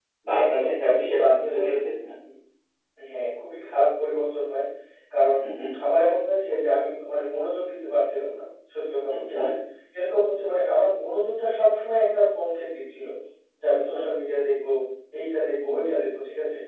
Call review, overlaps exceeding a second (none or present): present